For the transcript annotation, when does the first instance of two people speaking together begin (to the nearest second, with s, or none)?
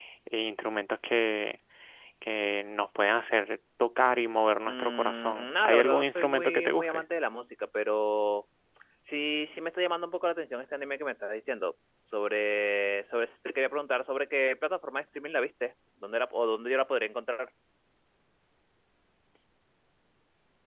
5 s